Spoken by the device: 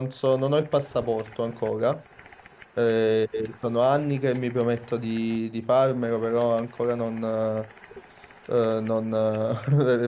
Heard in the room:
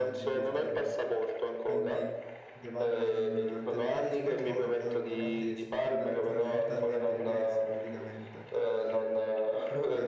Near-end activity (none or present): present